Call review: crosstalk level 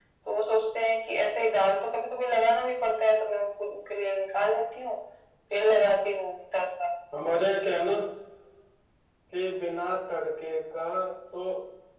none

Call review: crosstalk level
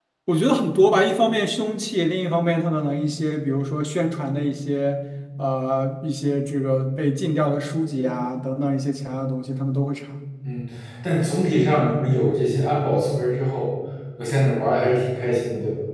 none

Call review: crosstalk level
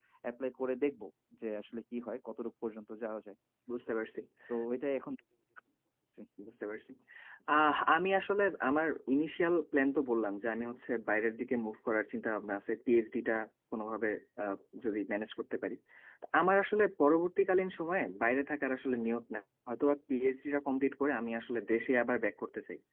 none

